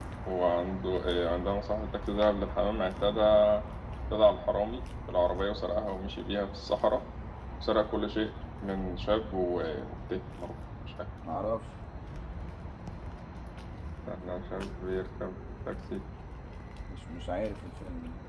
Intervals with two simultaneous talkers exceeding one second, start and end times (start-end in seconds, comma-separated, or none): none